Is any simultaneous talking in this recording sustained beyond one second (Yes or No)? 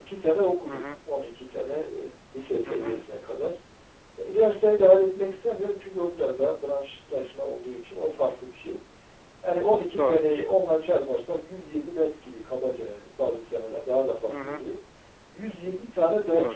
No